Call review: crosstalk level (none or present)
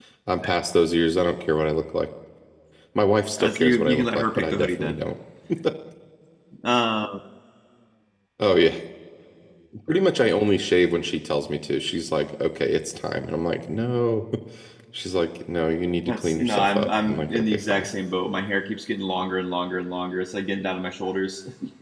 present